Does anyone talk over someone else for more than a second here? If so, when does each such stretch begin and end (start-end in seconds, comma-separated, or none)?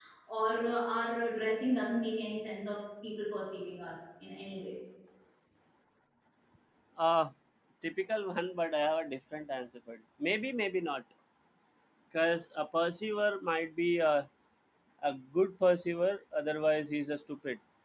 none